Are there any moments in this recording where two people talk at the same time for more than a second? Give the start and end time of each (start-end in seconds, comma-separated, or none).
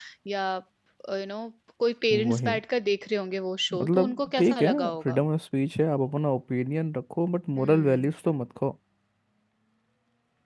3.7-5.2